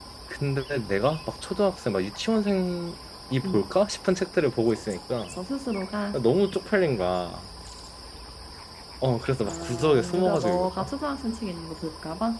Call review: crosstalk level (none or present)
present